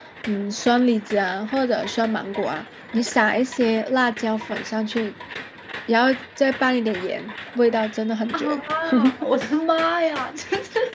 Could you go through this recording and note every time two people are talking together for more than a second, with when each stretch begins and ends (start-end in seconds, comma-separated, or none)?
none